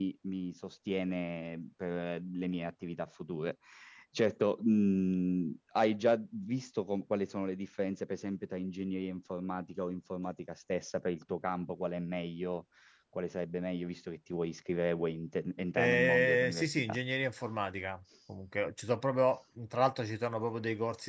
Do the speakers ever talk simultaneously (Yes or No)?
Yes